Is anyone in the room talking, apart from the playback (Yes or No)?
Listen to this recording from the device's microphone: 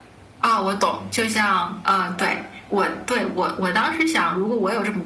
No